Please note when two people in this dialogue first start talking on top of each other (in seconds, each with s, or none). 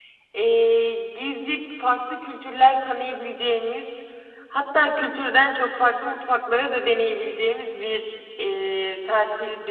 none